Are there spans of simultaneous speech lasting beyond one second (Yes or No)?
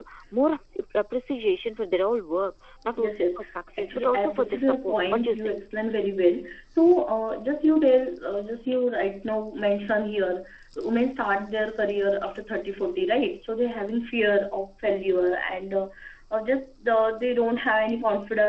Yes